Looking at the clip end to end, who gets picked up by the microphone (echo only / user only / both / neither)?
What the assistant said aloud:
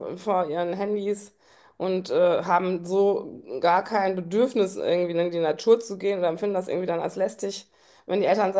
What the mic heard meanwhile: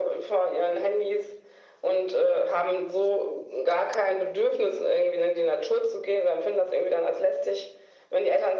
echo only